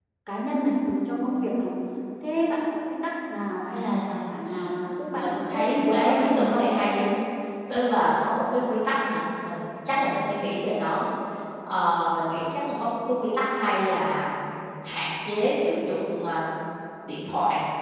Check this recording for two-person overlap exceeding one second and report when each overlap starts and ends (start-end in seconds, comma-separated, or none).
5.1-6.7